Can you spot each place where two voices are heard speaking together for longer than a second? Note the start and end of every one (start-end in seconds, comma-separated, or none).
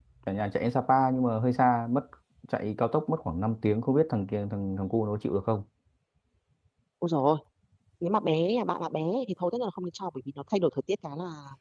none